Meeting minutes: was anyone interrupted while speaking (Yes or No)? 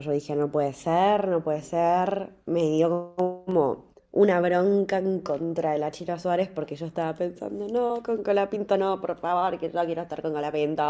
No